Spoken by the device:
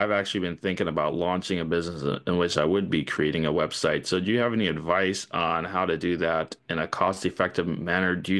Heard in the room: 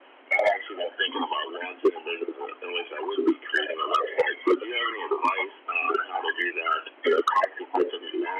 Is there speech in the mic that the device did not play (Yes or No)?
No